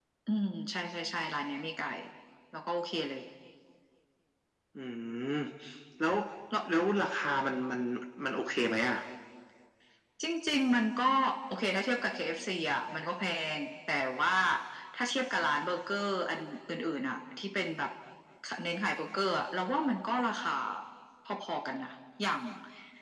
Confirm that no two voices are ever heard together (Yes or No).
Yes